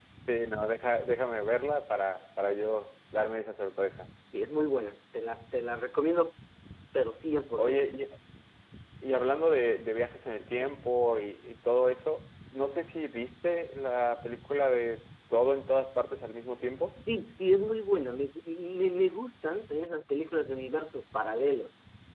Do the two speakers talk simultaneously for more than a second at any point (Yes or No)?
No